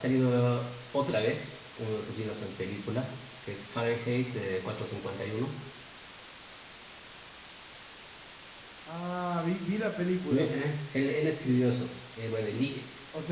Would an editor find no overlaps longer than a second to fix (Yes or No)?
Yes